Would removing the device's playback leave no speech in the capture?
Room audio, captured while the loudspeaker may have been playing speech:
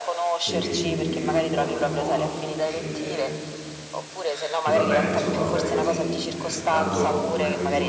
No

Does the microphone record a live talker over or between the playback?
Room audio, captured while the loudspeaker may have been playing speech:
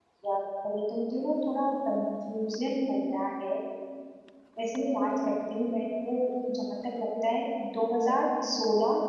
Yes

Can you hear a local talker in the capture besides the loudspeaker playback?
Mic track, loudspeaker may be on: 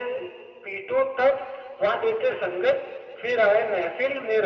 No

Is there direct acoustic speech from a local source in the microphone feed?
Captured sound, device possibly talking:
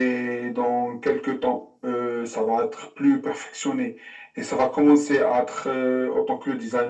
No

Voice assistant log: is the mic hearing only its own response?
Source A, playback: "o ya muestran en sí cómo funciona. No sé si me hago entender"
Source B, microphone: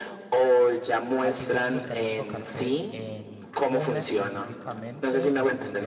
No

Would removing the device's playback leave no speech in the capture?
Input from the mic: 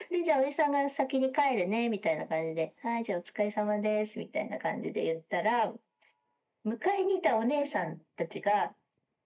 Yes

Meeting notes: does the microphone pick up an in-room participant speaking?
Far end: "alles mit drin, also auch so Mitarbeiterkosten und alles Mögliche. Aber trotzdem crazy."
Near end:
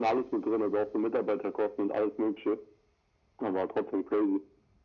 No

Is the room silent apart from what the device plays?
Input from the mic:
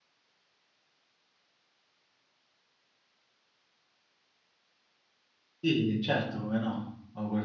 No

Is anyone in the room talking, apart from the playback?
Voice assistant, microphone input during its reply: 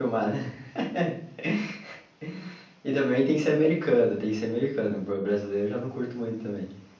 Yes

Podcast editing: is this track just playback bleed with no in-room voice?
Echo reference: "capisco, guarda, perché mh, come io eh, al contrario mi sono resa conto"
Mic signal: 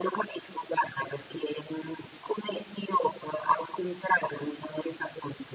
Yes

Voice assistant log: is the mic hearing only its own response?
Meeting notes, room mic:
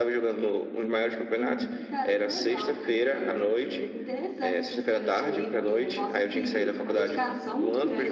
Yes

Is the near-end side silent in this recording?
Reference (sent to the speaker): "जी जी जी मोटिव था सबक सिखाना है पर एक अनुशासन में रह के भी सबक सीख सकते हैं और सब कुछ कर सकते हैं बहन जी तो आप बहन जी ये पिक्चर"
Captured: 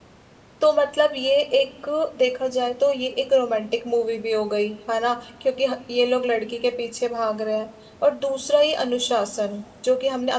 No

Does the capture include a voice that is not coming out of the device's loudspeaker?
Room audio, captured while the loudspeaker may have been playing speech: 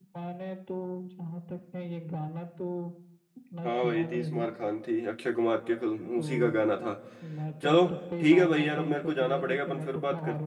Yes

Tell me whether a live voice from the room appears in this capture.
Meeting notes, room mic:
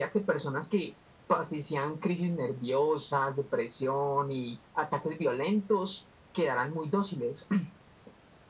No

